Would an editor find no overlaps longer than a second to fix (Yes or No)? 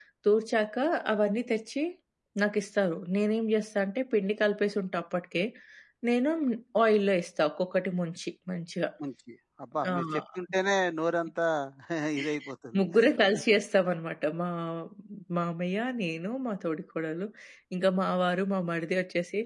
Yes